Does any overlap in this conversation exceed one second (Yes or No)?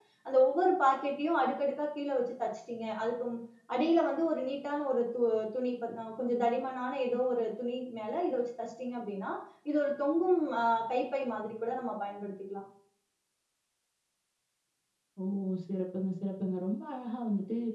No